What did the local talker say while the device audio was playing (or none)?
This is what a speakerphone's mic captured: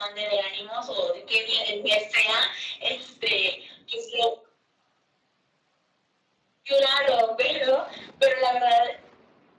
none